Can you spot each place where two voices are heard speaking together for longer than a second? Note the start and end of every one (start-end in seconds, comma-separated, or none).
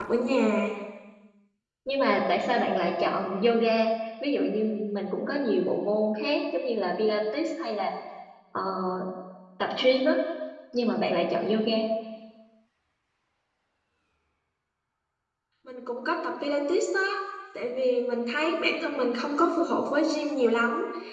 none